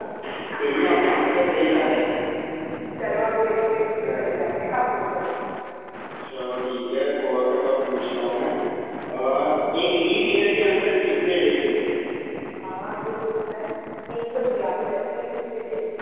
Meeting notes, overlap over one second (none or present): none